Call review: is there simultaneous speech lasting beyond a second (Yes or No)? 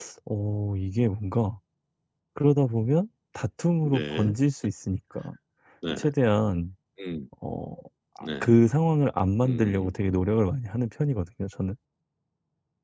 No